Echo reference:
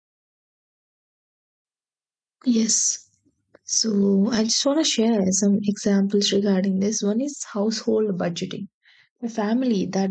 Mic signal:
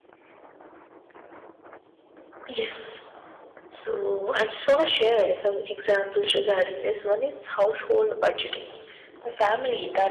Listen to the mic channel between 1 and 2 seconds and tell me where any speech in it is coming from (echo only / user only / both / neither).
neither